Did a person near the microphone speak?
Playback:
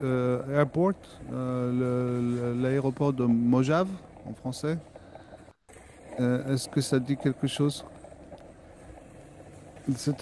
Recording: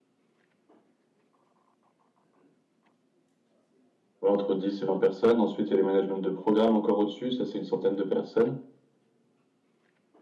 Yes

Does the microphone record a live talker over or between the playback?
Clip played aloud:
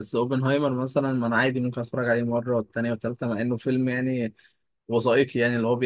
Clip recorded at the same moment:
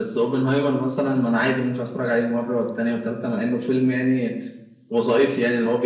No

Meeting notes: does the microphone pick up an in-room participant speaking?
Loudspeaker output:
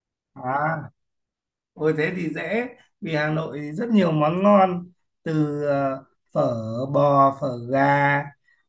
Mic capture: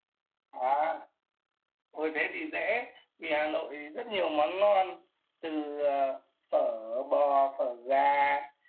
No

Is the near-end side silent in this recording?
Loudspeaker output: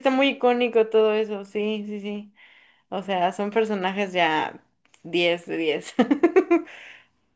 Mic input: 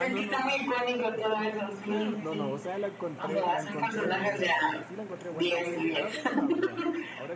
No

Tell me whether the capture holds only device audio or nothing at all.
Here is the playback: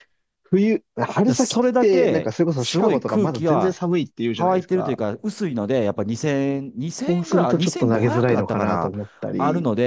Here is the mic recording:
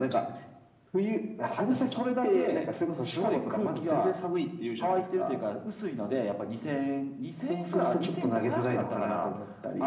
Yes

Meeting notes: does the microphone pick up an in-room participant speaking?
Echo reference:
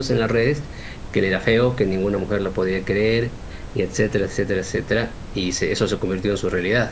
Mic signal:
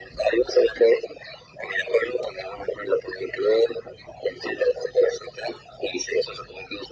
No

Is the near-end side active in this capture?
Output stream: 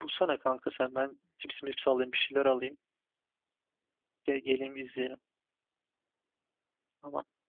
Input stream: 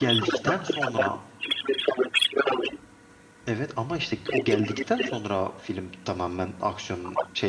Yes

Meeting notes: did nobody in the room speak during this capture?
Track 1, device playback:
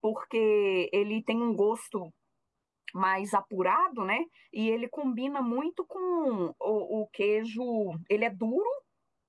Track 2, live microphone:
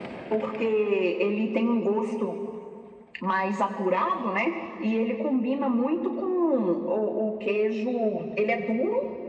Yes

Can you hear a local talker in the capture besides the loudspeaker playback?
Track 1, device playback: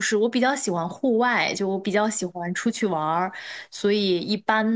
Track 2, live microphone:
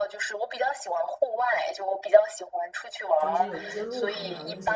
Yes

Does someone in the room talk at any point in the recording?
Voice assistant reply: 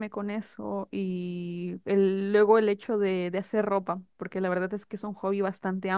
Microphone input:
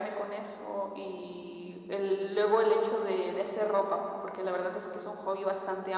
No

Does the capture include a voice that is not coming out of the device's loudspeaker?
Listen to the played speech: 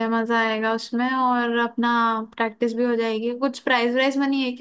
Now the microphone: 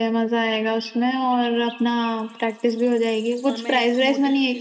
Yes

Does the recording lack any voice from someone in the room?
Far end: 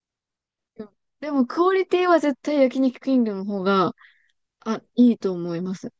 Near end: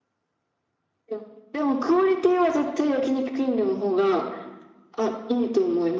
Yes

